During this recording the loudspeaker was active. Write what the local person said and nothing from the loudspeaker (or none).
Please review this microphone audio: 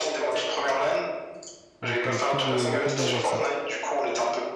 Donc ouais, cool de cool de voir ça.